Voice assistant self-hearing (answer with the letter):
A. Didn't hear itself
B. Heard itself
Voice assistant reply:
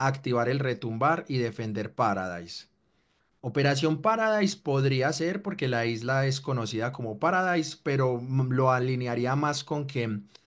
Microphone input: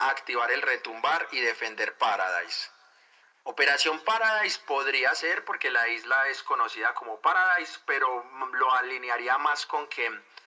B